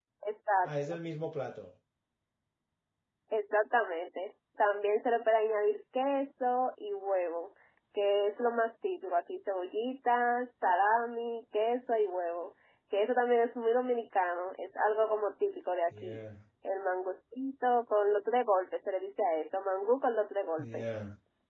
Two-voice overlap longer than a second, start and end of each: none

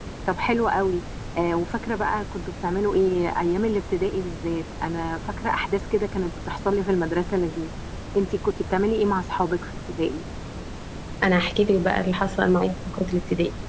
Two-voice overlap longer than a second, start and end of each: none

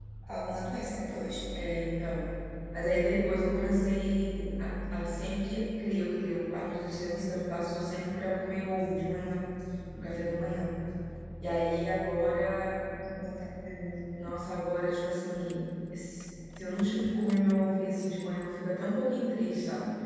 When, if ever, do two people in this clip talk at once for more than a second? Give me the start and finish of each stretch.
none

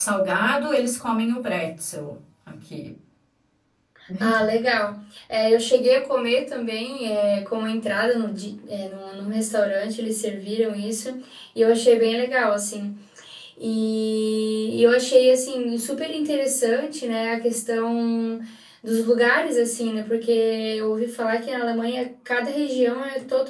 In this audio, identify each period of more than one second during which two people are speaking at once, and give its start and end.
none

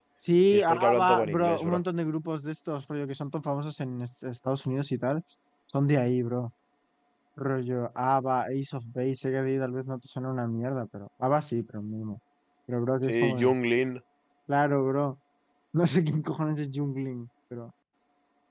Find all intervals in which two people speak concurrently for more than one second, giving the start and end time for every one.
0.5-1.8

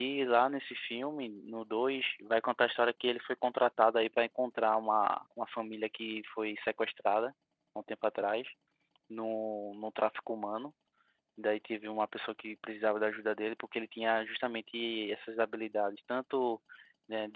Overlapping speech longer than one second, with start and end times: none

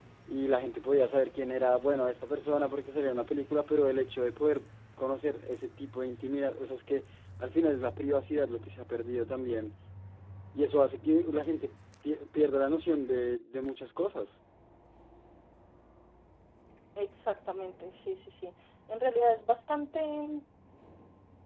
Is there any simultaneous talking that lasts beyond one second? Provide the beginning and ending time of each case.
none

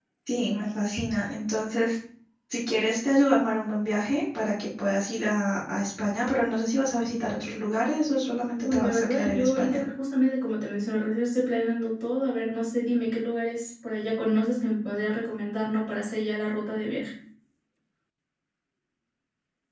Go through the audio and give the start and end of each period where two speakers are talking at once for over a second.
8.6-9.8

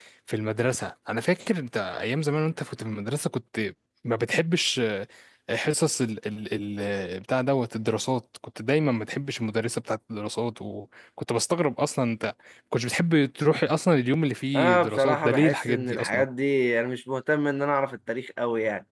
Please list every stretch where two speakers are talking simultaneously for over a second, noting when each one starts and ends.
14.6-16.2

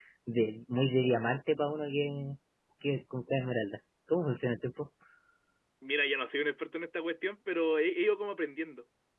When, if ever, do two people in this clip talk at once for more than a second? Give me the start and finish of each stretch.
none

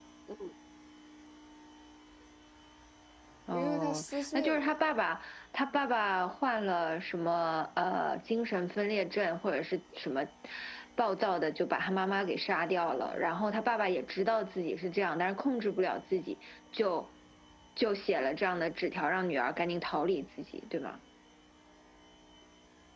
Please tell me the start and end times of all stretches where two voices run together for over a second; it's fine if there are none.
3.5-4.8

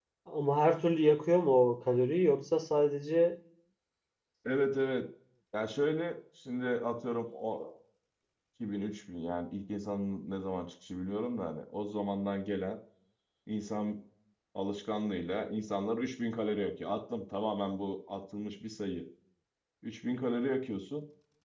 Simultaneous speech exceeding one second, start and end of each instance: none

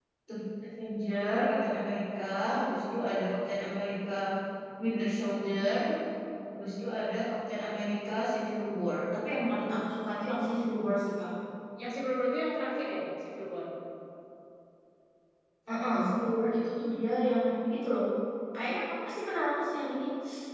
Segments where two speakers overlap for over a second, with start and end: none

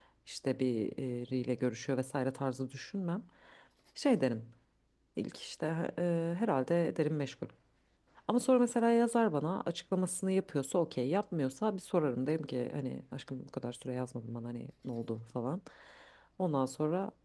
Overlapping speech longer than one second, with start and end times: none

